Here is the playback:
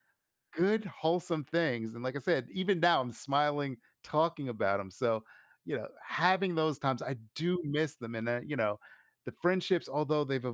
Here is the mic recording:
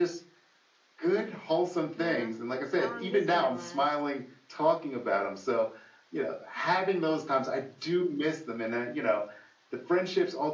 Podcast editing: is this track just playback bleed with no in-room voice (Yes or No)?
No